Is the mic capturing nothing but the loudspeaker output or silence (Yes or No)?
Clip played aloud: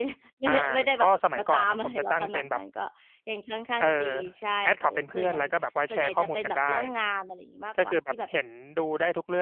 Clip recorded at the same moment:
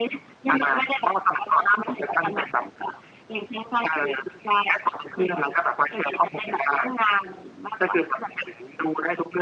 Yes